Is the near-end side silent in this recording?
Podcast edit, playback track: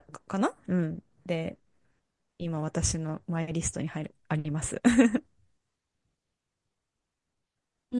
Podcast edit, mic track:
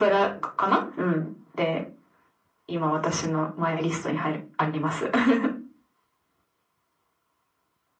Yes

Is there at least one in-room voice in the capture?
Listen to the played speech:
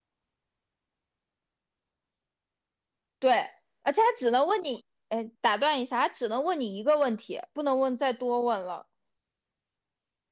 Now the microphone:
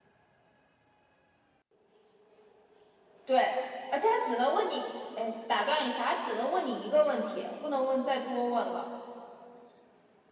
No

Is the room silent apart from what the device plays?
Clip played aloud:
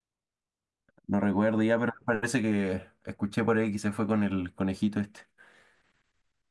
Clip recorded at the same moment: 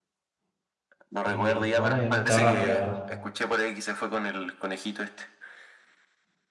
No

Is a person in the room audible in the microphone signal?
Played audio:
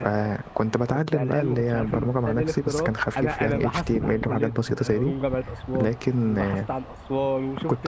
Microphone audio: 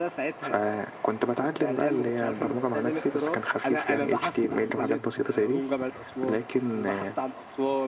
No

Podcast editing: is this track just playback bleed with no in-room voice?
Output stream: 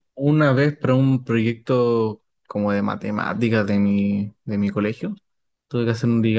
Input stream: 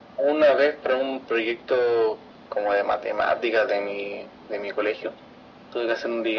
Yes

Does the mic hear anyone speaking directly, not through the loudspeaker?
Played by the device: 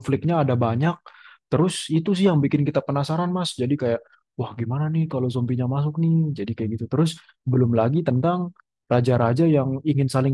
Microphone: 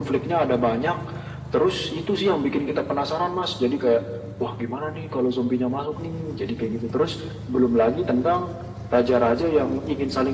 No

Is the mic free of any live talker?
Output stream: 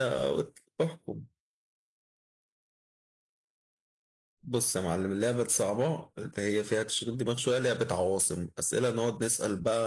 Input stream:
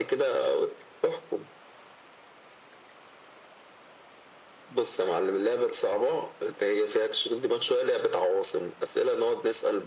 Yes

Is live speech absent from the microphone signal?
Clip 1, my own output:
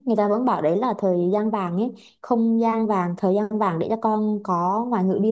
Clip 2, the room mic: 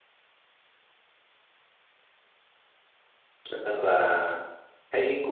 No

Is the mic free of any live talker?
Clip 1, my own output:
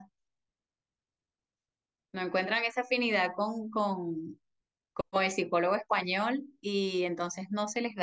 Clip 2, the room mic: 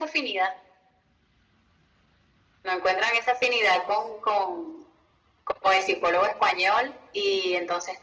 Yes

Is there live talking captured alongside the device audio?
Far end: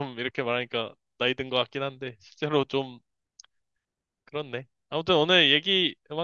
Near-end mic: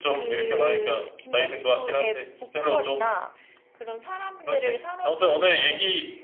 Yes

